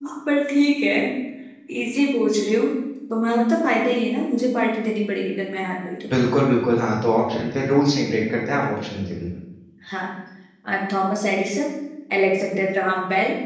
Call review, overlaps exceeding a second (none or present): none